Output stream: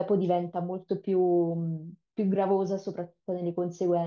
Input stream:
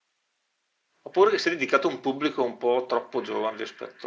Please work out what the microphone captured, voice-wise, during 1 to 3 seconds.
user only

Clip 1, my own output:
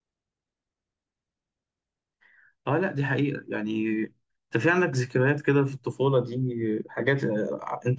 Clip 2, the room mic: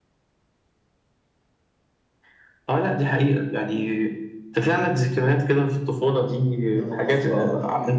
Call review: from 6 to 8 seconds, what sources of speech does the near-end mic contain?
both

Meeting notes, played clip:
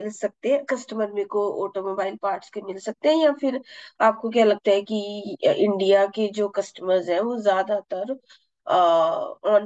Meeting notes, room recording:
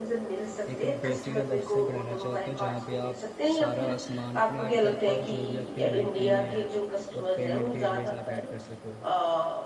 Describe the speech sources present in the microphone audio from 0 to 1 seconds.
both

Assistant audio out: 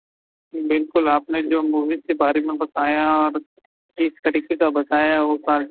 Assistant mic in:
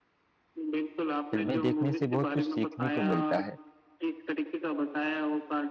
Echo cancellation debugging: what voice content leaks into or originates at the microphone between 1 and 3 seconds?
both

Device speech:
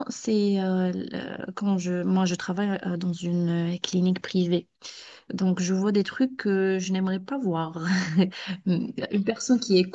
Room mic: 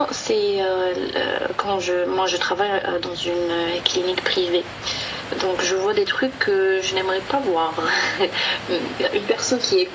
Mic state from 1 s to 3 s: echo only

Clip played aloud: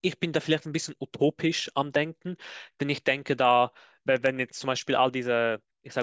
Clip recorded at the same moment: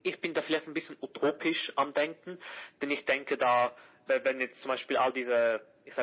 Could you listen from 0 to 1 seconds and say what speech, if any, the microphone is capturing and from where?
echo only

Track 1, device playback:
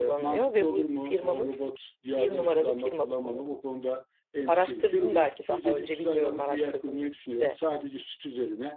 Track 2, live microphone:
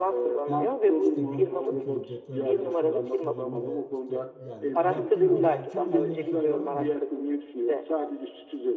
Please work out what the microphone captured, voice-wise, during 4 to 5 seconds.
both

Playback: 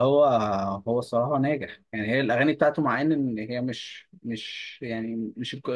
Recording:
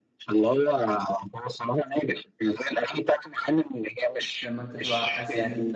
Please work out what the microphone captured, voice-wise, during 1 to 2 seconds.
echo only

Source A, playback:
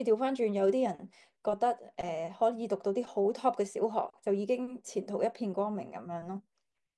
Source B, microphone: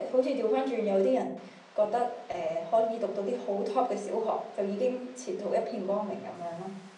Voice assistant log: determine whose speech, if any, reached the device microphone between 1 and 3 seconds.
echo only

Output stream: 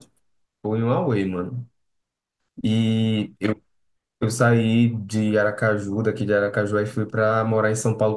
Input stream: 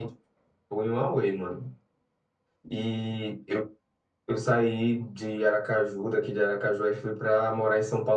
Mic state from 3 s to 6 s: echo only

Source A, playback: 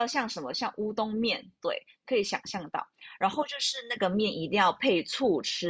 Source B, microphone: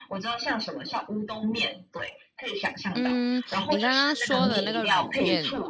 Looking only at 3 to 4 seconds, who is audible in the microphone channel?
both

